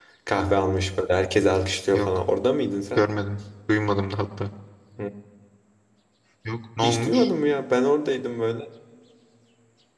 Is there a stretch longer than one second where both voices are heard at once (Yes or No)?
No